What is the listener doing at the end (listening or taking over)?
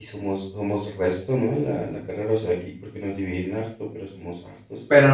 taking over